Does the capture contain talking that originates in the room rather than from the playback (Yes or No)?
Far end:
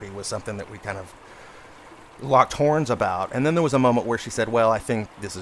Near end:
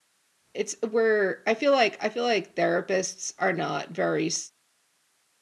Yes